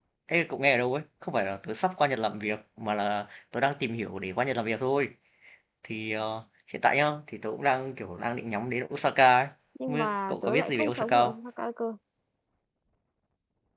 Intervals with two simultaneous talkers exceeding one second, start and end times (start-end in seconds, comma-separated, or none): 9.9-11.4